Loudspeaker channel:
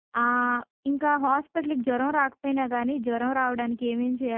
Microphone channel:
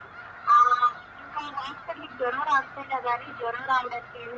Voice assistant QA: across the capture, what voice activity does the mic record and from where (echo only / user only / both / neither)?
echo only